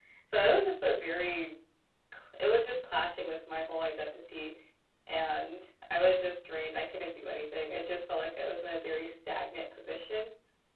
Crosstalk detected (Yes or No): No